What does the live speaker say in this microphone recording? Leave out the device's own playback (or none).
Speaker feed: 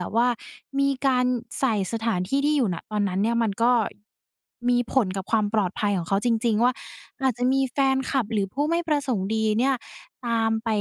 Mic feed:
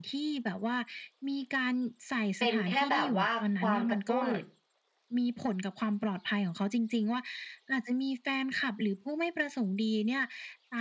เป็นแค่แบบว่าความกระตุ้น